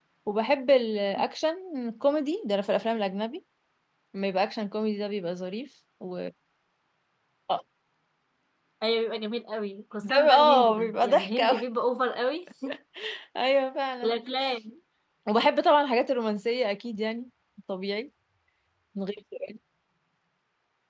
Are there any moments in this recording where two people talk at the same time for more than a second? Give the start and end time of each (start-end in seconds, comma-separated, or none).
10.0-11.6